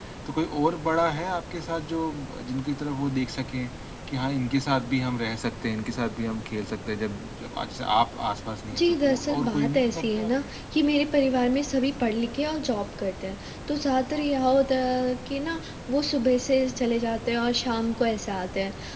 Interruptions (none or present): present